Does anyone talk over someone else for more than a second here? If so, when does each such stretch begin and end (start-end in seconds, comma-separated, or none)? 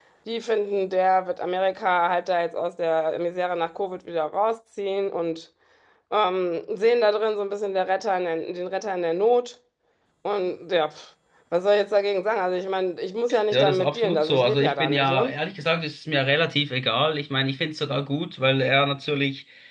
13.5-15.3